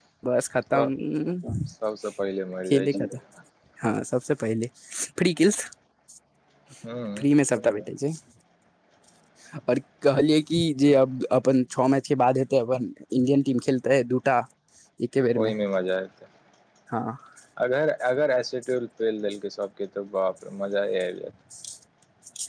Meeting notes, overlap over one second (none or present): none